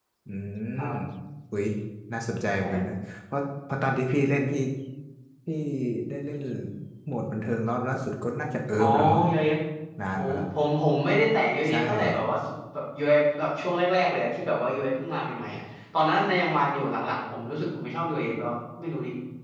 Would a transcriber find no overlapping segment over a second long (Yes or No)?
Yes